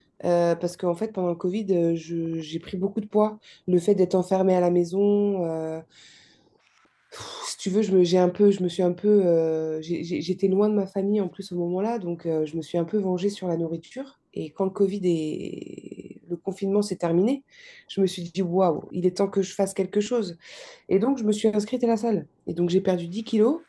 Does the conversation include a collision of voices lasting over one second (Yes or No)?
No